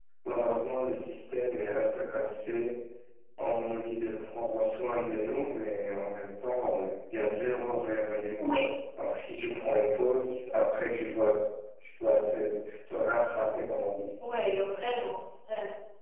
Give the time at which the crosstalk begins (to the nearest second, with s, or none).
none